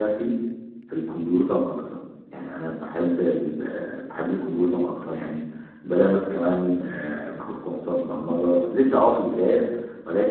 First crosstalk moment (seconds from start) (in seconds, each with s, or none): none